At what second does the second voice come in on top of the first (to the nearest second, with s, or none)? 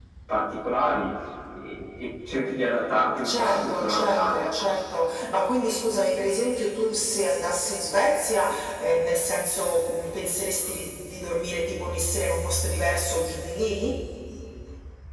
3 s